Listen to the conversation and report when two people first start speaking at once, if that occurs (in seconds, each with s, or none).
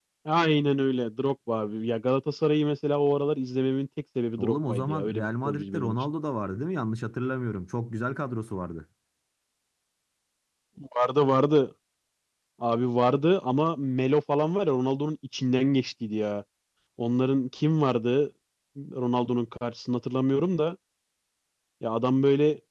4.4 s